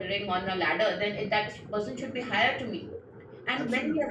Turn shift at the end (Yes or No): No